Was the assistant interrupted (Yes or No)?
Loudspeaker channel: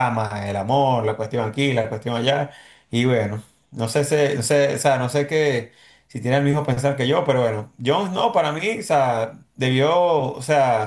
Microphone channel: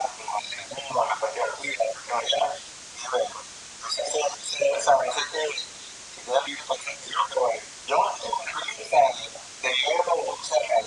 No